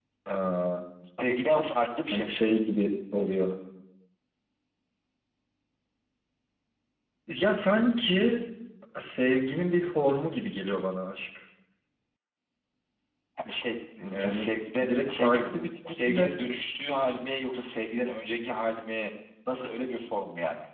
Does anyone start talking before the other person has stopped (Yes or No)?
Yes